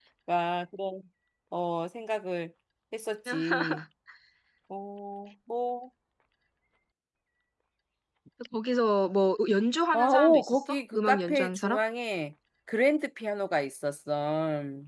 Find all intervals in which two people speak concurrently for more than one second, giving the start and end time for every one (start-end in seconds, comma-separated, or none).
9.9-11.8